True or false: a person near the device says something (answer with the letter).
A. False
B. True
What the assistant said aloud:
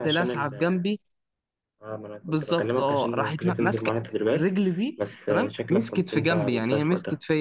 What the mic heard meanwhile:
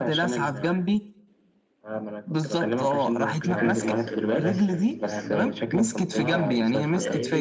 B